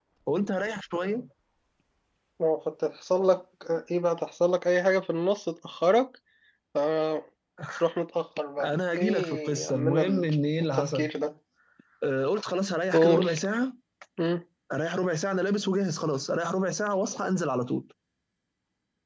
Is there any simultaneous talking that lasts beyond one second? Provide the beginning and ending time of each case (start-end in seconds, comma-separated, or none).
8.6-10.3